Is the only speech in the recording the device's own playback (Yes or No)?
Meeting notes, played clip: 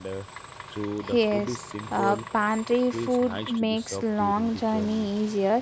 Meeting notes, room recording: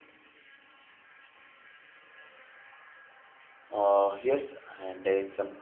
No